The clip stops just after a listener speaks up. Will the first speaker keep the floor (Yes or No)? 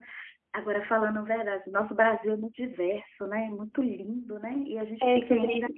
No